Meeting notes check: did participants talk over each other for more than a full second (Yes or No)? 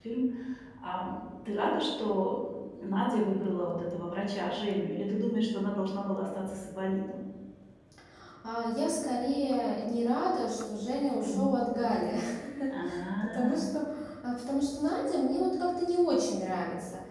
No